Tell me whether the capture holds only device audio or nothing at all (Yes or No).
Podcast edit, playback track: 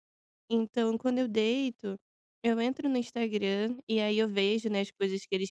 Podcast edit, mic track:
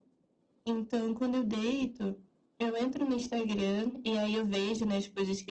Yes